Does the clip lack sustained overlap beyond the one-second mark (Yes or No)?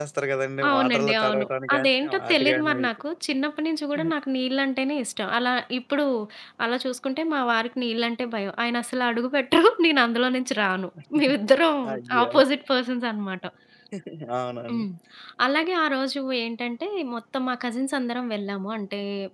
No